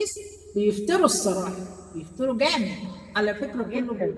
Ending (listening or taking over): listening